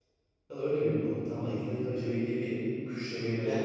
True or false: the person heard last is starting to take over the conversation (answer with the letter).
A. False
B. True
A